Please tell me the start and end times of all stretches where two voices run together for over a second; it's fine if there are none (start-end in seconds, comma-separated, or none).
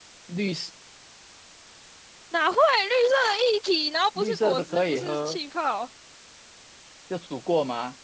4.2-5.4